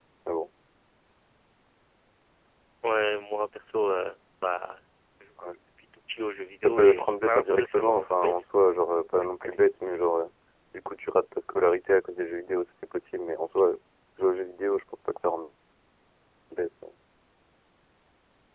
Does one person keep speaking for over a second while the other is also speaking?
Yes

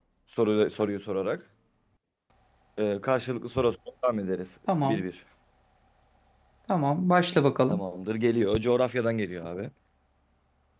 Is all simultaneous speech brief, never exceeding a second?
Yes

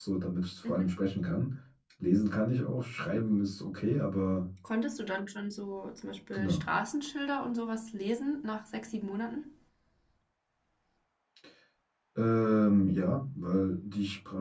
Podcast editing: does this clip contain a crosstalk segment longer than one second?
No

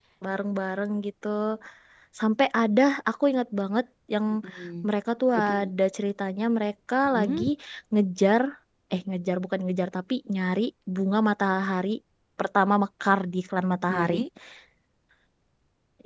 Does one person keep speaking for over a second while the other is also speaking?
No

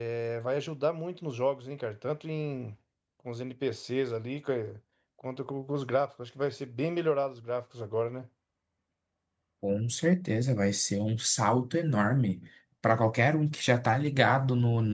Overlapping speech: No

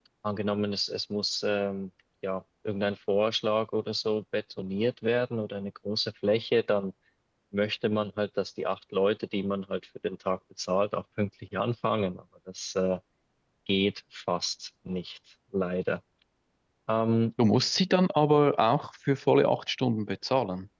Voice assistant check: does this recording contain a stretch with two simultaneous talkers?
No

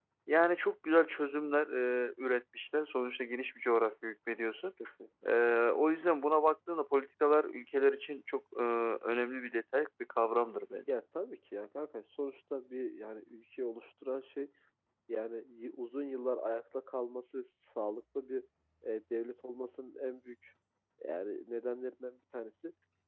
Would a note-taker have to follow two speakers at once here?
No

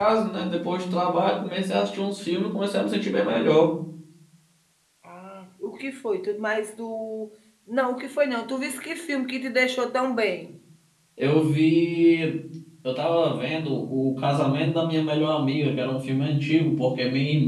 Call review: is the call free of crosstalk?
Yes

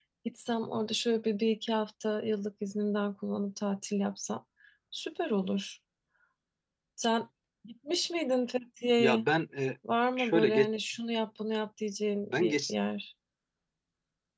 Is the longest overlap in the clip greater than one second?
No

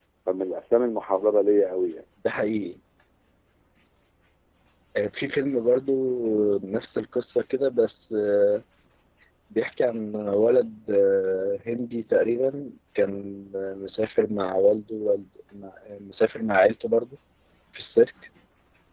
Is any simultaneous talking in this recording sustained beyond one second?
No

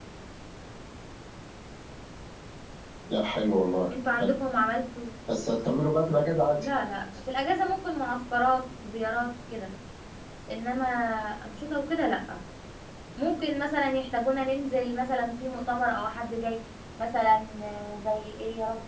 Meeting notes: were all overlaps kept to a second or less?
Yes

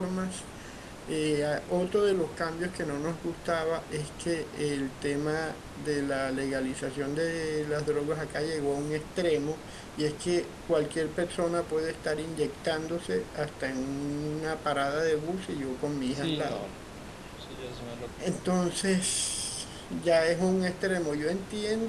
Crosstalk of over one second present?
No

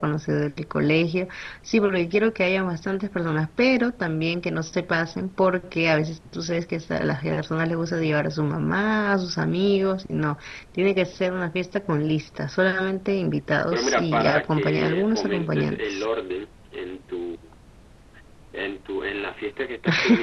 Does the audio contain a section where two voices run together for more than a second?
Yes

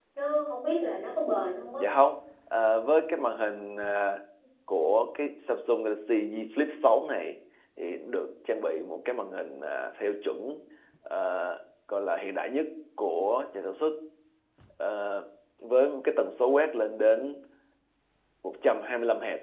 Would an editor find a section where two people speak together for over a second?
No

